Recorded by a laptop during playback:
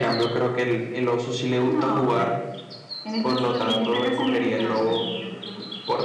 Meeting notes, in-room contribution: none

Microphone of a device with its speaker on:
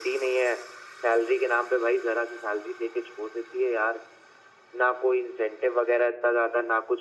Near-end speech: none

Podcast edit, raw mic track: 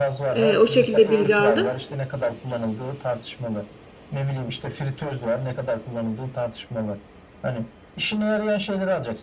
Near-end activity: present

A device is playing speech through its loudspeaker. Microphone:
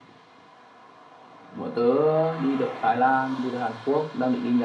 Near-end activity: none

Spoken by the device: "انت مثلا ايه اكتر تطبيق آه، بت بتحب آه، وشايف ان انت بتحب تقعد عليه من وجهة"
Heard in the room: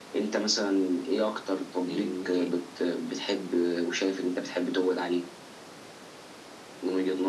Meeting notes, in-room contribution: present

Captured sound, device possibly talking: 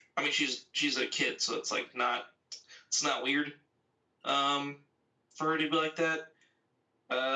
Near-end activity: none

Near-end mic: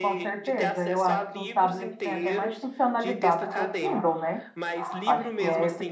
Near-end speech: present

